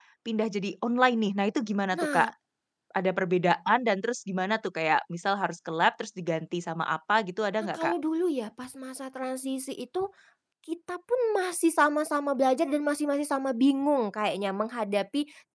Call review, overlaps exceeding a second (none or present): none